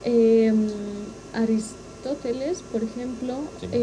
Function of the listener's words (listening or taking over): listening